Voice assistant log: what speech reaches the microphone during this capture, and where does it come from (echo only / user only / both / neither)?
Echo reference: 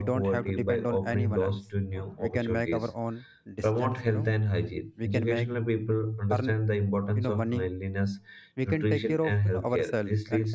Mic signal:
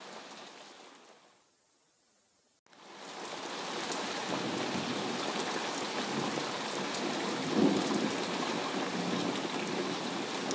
neither